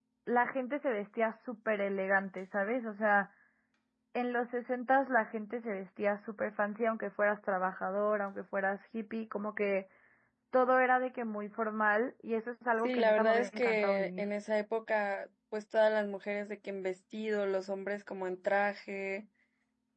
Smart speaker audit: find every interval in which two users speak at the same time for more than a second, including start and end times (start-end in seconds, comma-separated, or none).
12.8-14.2